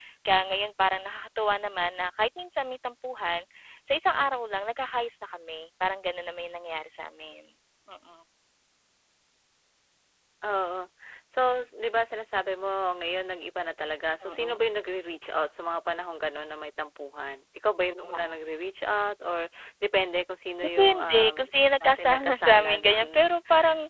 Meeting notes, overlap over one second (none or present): present